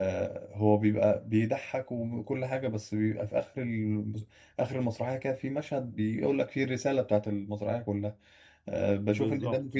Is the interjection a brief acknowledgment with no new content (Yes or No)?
No